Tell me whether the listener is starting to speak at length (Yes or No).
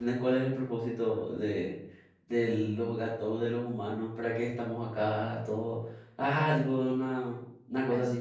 No